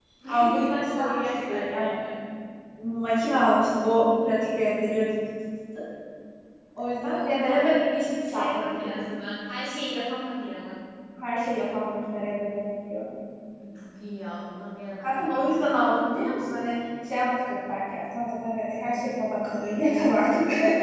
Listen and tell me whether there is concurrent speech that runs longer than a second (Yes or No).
Yes